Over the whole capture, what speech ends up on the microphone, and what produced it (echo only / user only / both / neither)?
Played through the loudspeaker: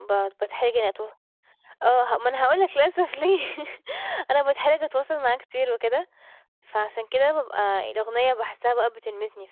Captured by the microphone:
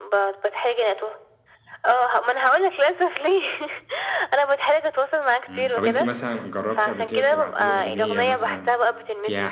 both